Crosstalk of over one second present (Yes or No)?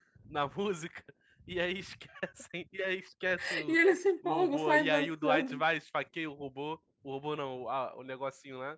Yes